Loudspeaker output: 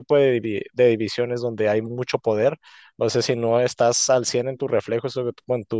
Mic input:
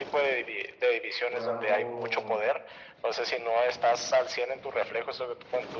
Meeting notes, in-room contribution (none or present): present